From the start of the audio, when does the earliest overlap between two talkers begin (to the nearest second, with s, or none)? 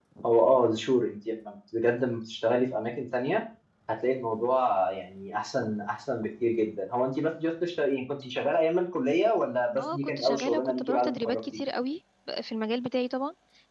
10 s